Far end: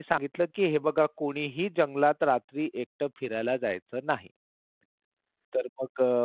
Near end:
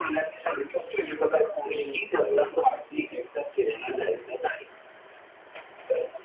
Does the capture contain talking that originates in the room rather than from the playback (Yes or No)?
Yes